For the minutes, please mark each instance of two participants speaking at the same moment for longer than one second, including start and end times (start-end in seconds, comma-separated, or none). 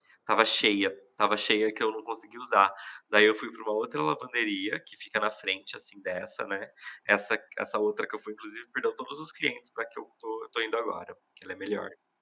none